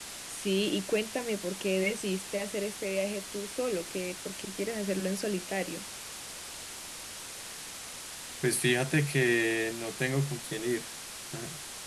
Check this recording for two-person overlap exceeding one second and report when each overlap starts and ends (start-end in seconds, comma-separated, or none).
none